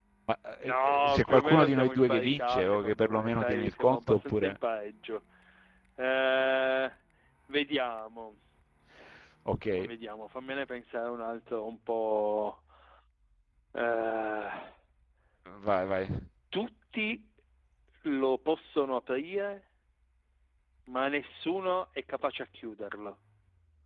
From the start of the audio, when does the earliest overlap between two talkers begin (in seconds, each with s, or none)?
0.6 s